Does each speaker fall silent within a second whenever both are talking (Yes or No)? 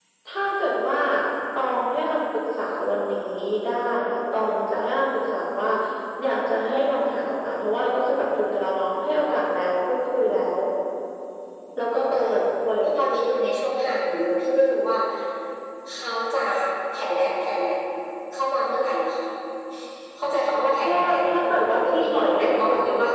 No